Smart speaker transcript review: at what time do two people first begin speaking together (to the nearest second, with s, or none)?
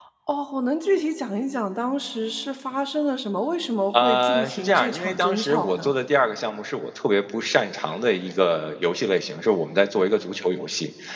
4 s